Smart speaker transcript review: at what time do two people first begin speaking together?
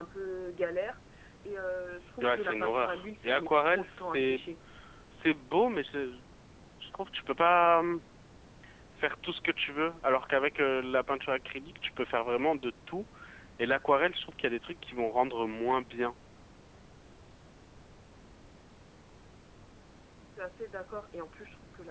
2.2 s

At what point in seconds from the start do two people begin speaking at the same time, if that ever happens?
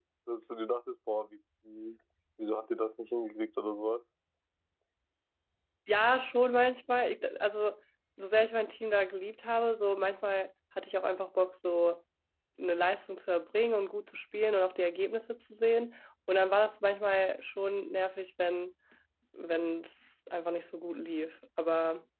none

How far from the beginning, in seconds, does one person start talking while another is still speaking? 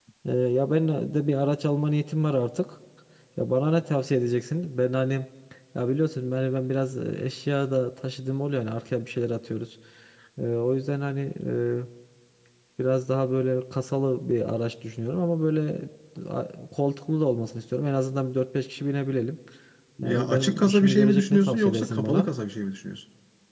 20.0 s

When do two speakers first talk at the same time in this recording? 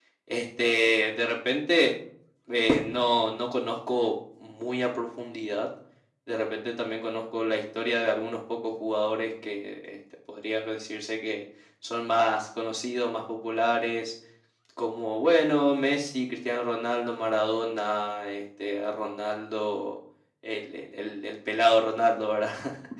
none

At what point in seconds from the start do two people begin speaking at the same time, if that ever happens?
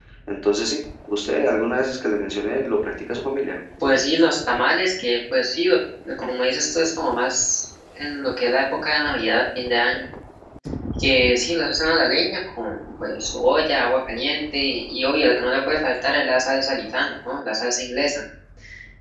none

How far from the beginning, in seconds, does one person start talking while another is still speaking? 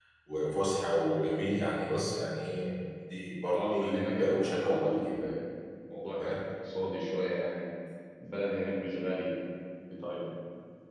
3.5 s

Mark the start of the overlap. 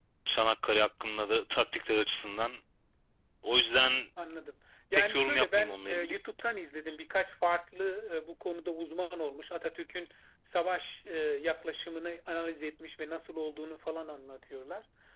4.9 s

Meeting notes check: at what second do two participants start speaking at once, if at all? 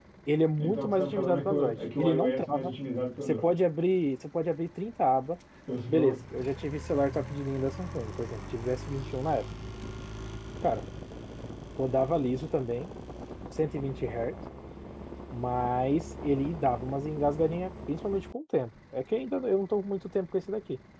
0.6 s

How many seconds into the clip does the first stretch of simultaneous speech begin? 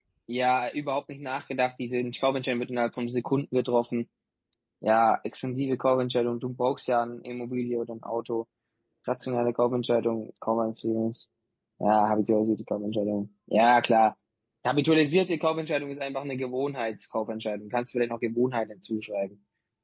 none

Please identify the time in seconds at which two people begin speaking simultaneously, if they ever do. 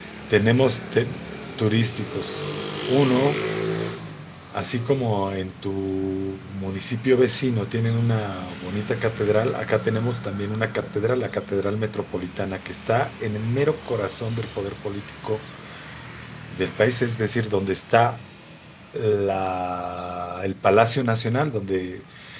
none

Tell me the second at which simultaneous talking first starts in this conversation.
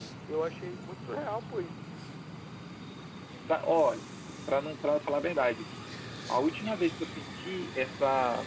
none

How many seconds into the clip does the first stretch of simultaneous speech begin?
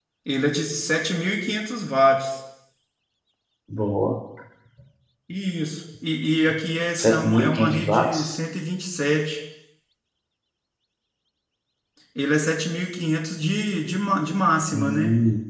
7.0 s

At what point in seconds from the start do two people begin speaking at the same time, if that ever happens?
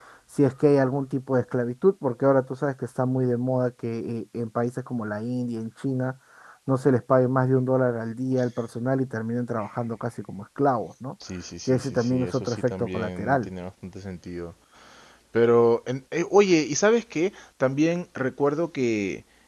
11.7 s

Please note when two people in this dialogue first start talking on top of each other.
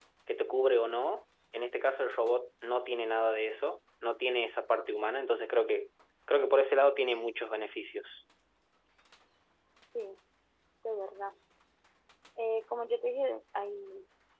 none

